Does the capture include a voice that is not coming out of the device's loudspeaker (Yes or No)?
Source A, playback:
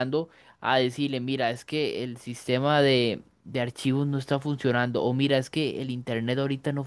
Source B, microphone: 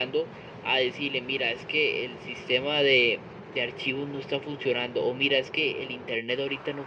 No